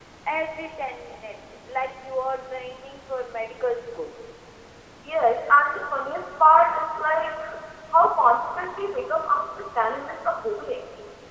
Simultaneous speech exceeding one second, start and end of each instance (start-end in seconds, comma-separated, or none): none